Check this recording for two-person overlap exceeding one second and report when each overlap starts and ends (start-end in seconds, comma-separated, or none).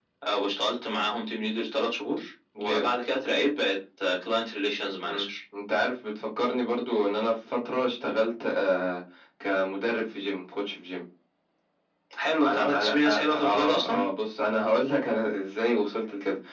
12.4-14.0